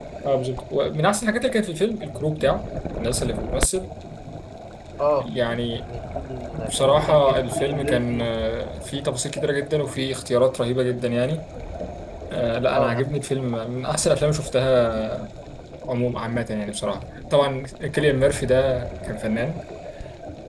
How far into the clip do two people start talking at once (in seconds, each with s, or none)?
6.7 s